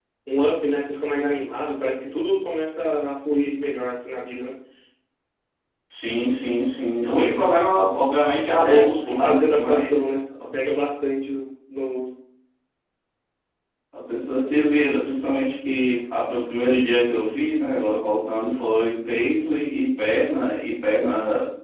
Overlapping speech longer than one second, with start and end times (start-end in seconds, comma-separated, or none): 8.6-10.2